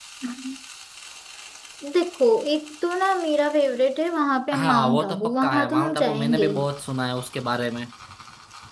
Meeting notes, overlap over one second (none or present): present